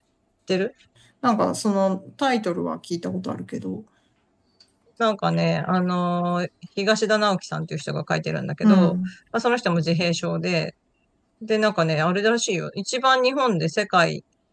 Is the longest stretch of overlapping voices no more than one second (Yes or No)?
Yes